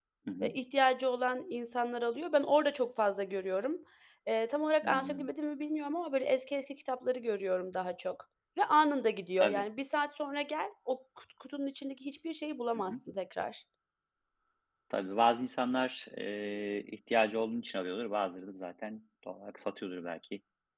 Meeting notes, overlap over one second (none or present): none